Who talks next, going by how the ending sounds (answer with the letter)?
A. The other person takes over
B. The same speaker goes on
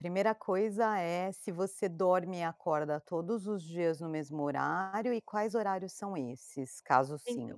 A